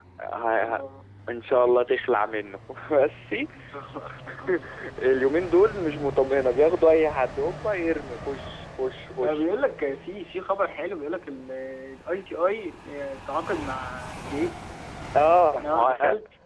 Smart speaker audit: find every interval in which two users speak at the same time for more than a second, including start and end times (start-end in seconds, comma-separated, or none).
none